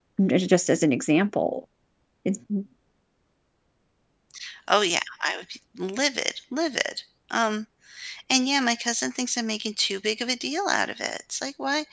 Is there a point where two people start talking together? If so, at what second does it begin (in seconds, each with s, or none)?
none